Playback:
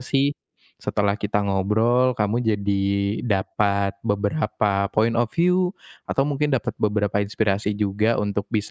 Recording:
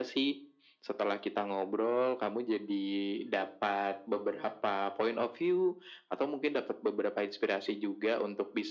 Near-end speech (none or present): none